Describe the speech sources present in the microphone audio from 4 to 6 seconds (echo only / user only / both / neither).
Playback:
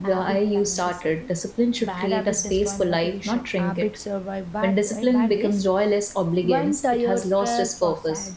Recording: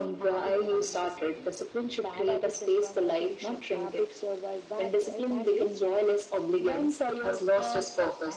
echo only